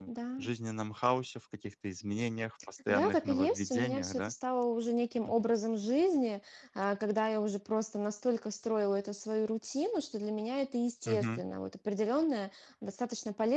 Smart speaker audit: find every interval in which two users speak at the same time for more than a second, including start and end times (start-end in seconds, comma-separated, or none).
2.9-4.3